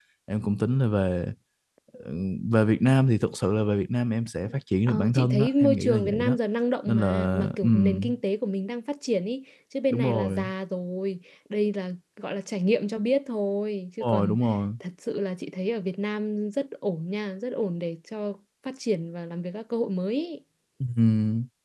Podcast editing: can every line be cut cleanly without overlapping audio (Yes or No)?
No